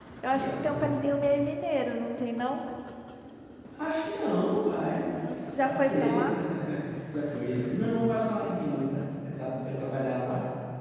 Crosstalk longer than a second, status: present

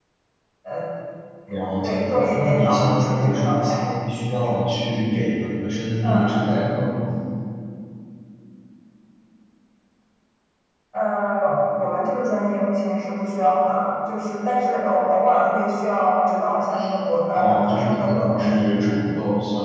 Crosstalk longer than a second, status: present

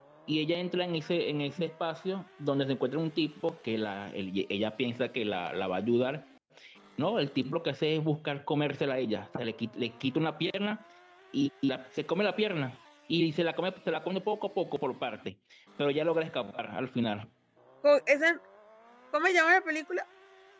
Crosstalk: none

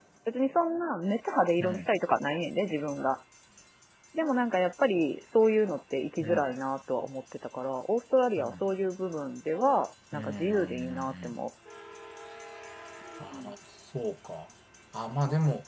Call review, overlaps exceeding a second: present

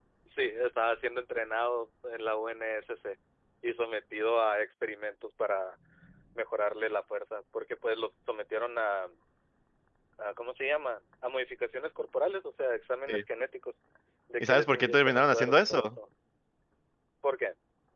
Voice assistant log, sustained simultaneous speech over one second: present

